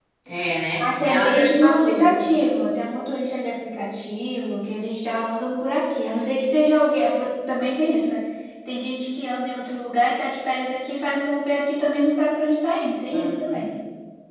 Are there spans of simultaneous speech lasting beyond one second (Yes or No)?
Yes